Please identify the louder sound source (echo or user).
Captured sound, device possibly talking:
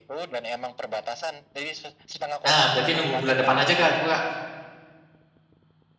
user